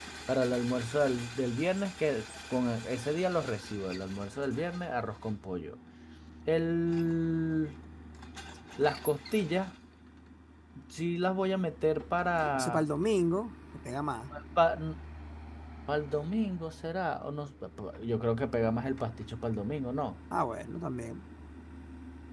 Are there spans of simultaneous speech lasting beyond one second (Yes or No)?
No